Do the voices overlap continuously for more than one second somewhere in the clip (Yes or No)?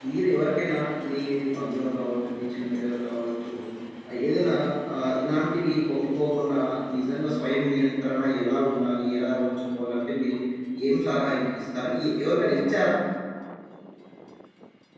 No